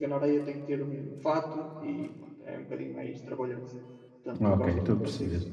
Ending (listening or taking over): taking over